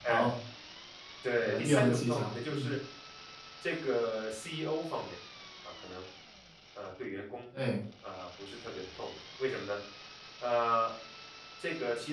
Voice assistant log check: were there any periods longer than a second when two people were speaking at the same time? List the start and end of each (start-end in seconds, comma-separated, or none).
1.4-2.7